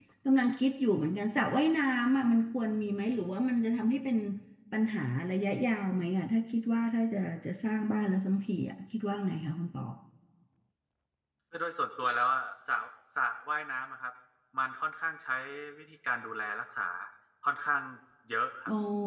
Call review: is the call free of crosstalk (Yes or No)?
Yes